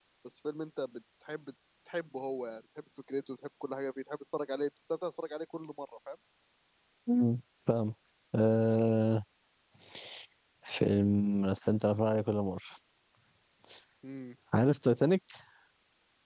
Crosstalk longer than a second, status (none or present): none